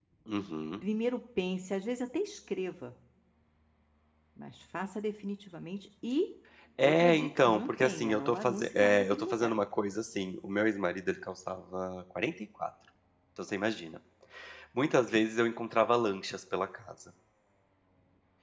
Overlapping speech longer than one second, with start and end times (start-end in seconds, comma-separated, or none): 6.8-9.6